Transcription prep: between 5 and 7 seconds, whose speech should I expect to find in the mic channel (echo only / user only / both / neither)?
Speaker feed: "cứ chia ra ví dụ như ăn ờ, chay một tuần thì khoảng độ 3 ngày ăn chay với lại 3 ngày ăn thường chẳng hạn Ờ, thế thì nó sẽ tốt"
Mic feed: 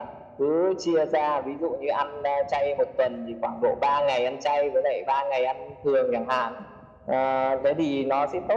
echo only